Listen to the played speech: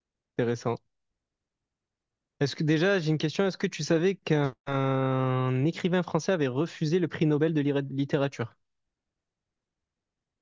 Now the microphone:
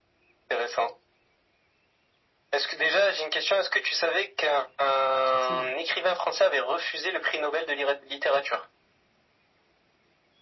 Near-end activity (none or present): present